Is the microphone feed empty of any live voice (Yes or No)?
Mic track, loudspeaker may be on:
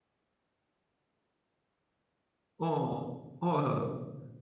No